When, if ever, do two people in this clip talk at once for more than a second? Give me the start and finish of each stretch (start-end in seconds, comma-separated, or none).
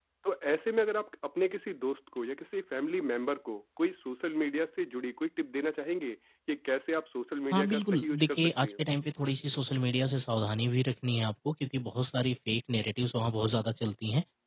7.5-8.8